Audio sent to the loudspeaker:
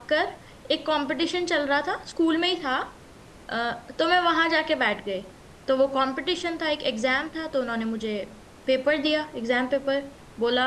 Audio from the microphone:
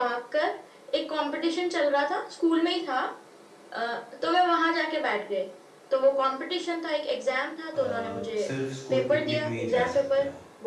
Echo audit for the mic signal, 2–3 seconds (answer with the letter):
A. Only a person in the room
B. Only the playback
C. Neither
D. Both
B